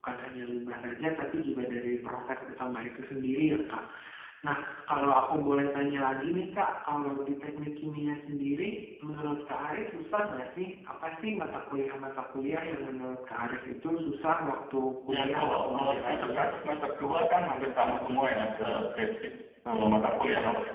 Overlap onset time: 15.1 s

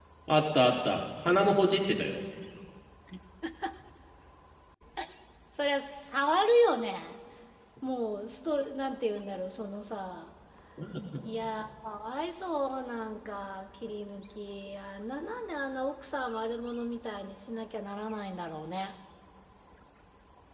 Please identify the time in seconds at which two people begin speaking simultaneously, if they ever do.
none

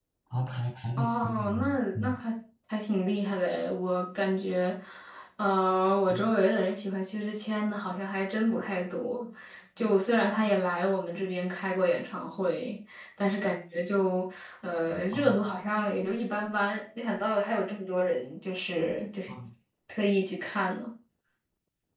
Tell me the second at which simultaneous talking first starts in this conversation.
1.0 s

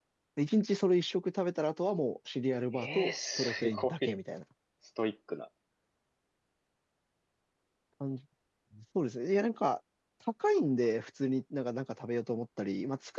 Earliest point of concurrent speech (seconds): 2.7 s

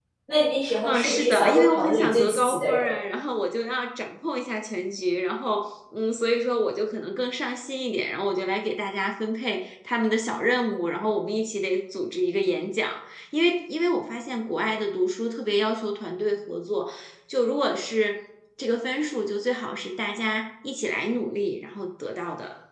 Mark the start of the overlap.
0.8 s

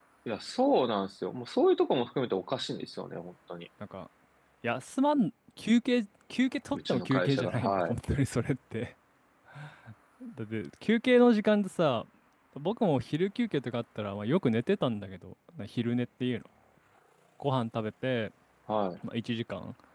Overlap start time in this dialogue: 6.7 s

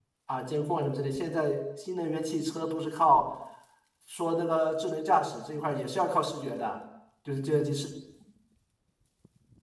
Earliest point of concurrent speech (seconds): none

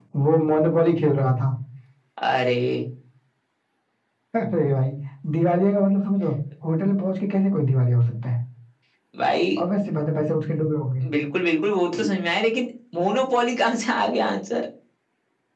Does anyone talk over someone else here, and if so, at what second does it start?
none

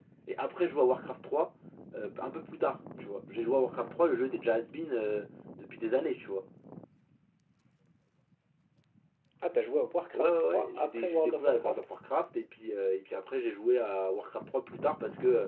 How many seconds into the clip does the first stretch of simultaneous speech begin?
10.1 s

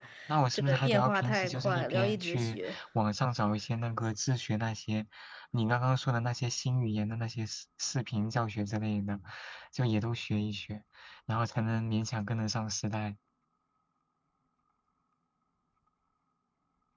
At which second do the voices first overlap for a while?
0.5 s

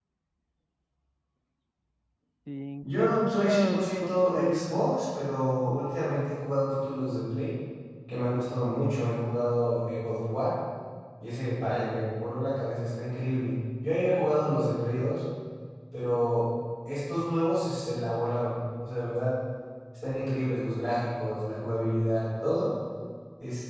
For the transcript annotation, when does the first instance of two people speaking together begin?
2.8 s

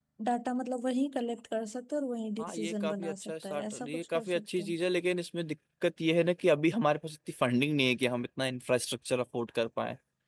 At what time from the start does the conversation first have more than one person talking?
2.4 s

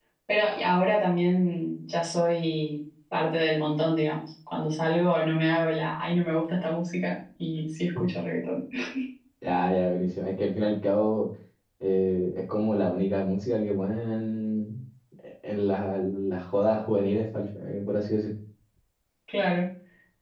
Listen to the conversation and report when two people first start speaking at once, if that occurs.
none

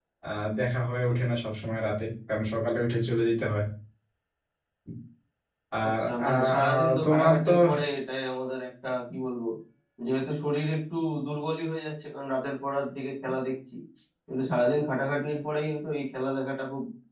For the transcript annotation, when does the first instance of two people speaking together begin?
5.9 s

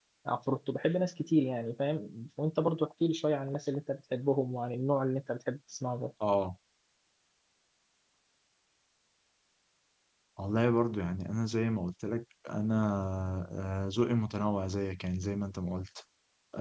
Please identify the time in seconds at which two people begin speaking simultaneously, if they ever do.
none

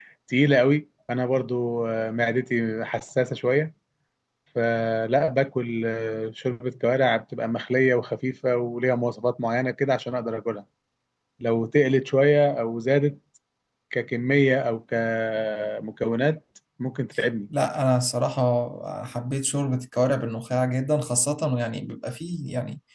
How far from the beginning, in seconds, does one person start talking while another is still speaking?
none

